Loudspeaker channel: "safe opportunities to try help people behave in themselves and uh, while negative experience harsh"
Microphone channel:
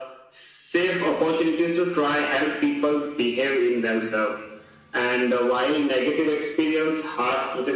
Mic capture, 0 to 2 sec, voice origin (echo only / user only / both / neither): echo only